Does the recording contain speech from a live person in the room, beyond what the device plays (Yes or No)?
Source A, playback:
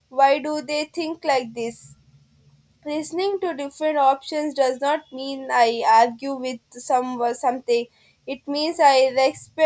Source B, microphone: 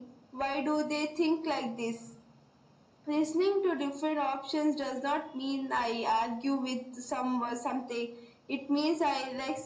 No